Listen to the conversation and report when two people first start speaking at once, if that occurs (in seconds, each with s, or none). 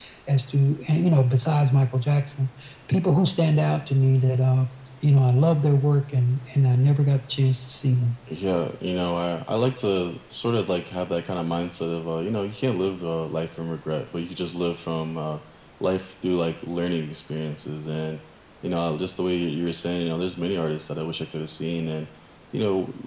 none